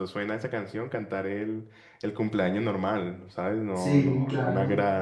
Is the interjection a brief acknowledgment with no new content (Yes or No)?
Yes